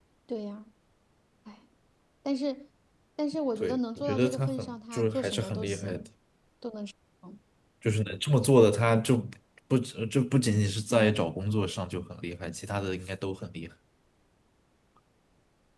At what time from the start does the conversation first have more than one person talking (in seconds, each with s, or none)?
3.6 s